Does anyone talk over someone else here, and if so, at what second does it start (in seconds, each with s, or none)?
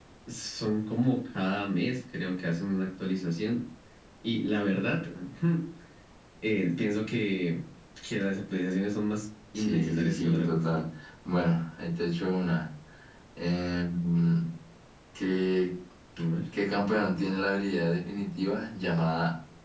9.6 s